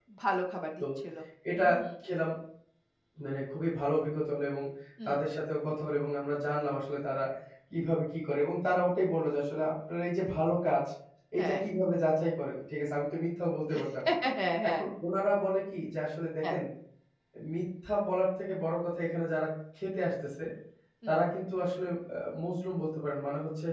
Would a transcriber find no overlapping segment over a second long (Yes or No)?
Yes